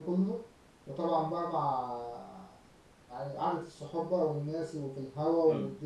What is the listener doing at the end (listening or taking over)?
taking over